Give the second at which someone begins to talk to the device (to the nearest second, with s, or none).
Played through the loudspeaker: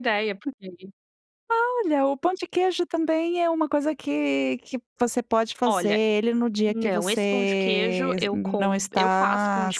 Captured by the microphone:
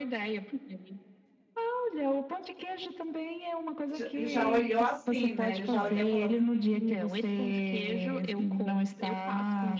4 s